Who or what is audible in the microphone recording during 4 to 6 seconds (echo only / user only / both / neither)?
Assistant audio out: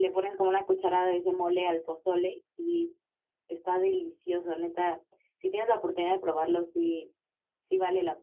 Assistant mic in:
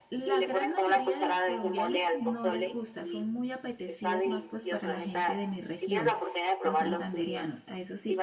both